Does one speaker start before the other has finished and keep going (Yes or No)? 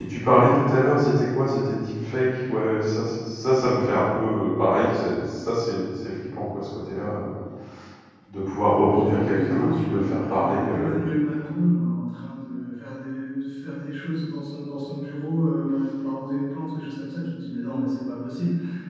Yes